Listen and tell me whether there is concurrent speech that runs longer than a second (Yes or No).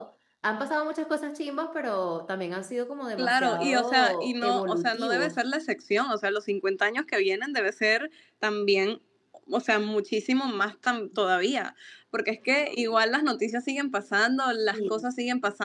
Yes